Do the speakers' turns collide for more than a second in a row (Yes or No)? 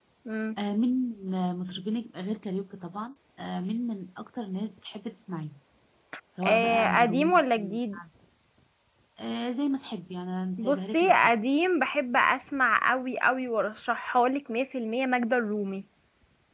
Yes